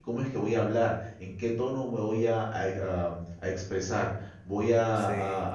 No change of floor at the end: Yes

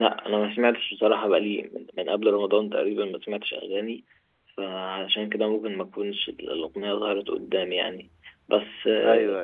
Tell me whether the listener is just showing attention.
Yes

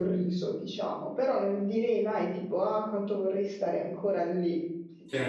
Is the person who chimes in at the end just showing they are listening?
No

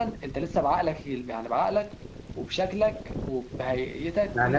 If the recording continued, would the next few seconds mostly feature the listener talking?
Yes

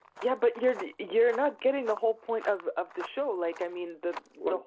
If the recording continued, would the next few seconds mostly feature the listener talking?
No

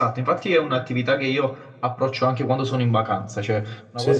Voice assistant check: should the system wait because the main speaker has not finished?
Yes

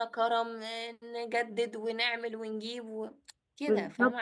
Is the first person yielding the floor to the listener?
Yes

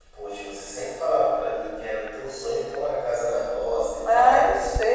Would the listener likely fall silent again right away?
No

